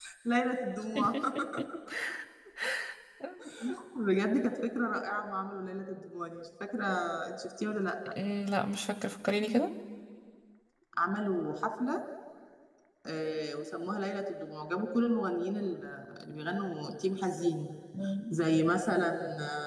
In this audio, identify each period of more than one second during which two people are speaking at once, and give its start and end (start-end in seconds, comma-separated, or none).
none